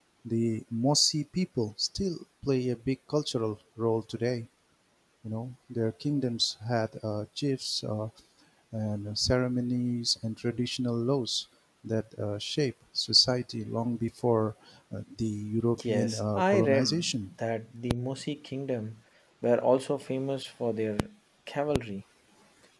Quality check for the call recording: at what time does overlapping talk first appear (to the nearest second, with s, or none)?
16 s